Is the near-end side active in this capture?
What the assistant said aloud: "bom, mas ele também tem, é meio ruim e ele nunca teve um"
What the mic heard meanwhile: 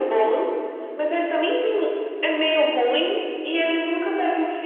No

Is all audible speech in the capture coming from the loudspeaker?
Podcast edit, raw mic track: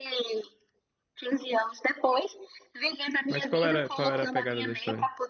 No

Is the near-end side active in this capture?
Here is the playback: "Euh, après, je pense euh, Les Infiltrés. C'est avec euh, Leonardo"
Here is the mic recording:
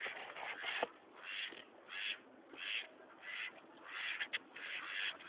No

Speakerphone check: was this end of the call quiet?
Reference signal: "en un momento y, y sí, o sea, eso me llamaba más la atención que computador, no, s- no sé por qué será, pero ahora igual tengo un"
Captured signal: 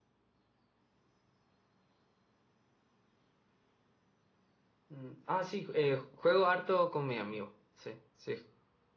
No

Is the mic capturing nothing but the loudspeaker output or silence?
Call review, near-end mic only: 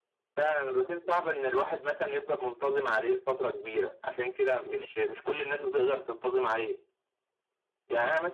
Yes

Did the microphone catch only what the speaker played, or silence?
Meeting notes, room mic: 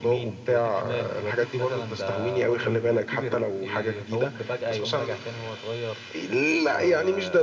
Yes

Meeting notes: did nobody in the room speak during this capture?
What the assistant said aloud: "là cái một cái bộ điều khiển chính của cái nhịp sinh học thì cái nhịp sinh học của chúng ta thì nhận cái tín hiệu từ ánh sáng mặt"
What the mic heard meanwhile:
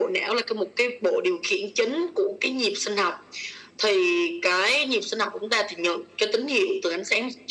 Yes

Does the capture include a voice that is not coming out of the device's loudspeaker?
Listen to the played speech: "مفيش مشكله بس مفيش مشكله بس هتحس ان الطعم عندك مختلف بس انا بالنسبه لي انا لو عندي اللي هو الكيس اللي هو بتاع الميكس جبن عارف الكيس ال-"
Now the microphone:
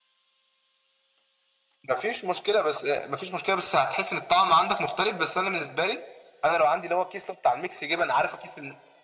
No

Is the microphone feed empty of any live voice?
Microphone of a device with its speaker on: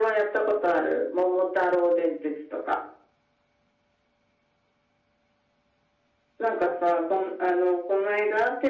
Yes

